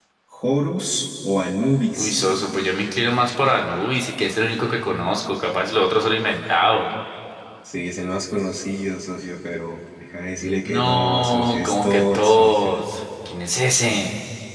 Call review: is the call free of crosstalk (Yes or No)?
No